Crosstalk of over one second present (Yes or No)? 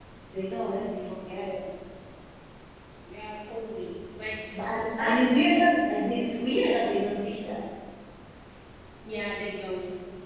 Yes